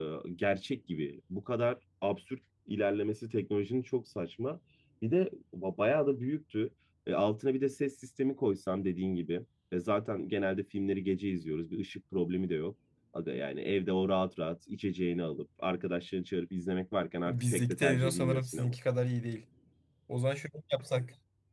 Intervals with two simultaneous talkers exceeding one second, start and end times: 17.3-18.7

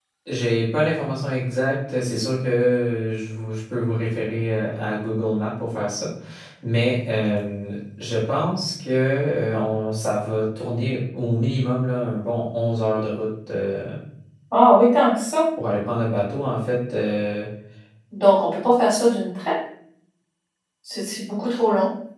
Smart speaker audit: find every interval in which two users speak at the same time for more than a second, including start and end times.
none

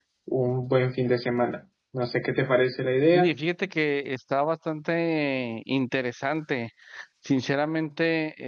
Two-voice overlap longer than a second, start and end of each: none

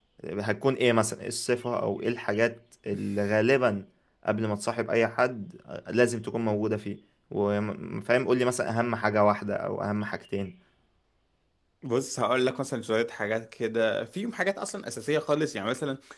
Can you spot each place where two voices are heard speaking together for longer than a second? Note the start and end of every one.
none

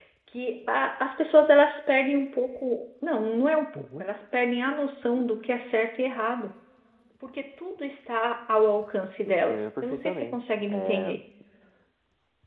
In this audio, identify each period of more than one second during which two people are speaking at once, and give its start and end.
9.2-11.1

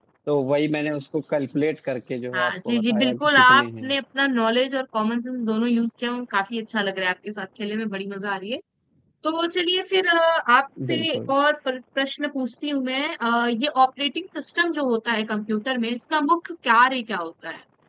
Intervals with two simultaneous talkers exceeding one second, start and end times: 2.3-3.9

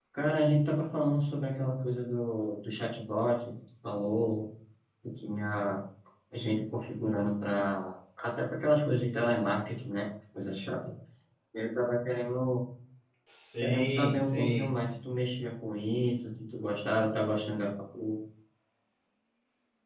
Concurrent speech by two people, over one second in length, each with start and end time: 13.6-14.9

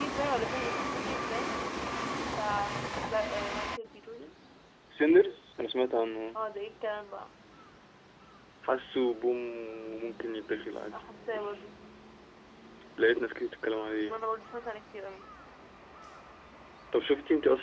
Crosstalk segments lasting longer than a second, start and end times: none

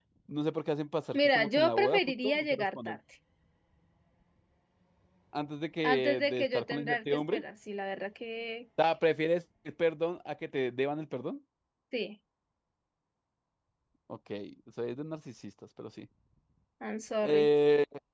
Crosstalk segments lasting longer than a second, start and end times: 1.1-3.0, 5.8-7.4

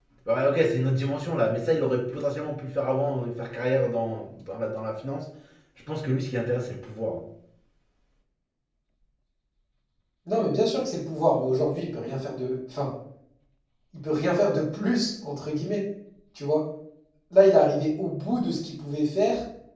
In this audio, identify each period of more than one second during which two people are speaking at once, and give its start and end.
none

